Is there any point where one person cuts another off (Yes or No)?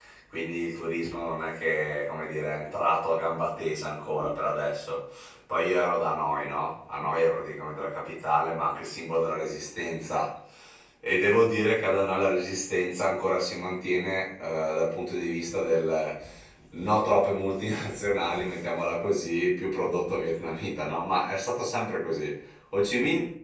No